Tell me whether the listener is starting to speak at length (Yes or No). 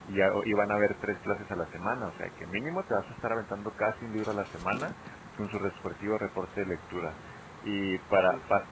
No